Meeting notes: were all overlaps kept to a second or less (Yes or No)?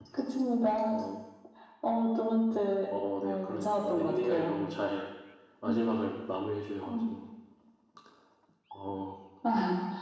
No